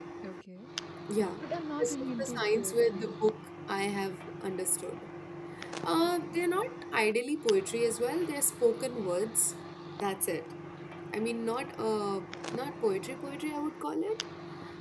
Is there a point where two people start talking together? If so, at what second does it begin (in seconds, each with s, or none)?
1.8 s